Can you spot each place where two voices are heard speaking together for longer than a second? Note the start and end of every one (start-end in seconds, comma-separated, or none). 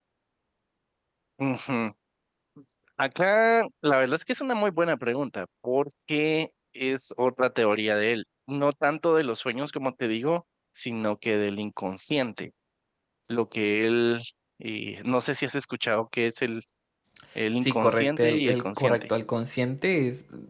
17.6-19.1